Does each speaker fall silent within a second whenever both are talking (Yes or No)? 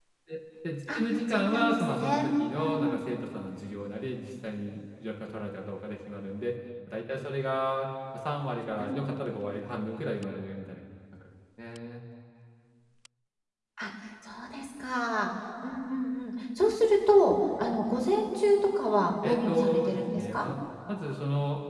No